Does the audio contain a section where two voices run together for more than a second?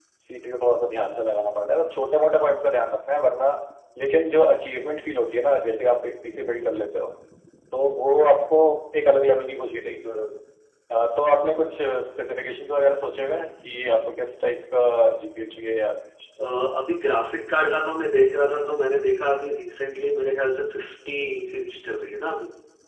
No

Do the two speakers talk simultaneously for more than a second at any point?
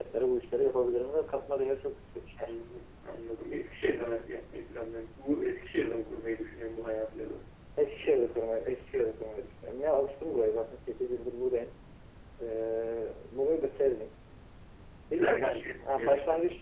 Yes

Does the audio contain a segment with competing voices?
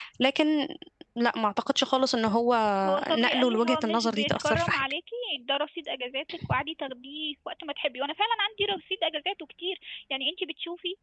Yes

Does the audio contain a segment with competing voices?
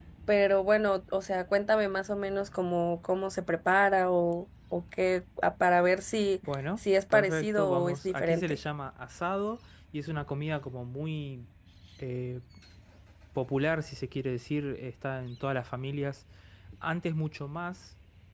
Yes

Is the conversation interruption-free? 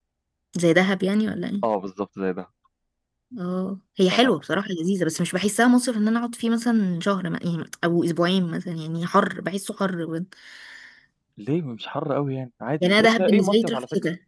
No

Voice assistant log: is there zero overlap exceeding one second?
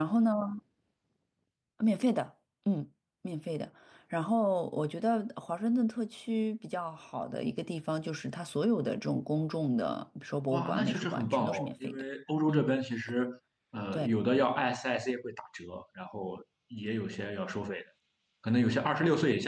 No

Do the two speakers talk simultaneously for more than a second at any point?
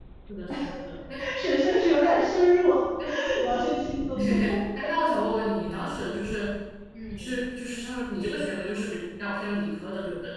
No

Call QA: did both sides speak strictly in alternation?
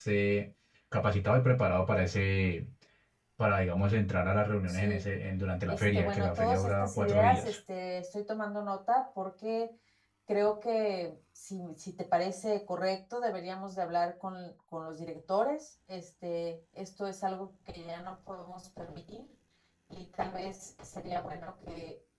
No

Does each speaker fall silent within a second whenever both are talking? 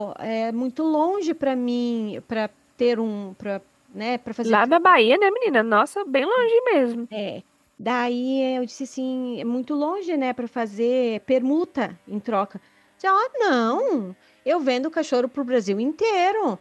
Yes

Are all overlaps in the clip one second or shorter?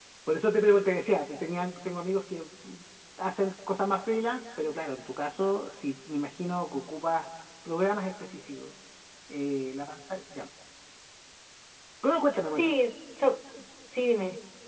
Yes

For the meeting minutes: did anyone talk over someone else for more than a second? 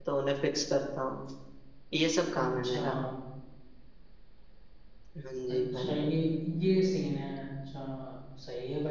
No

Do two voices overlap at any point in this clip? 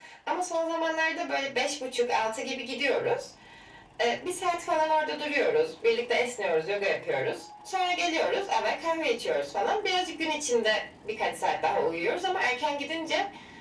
No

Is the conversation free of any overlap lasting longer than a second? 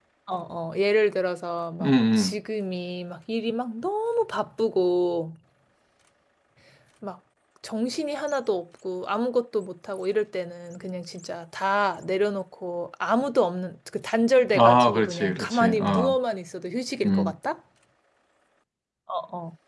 No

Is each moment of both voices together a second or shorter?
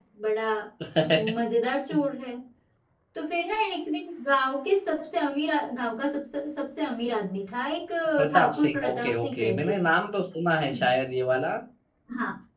No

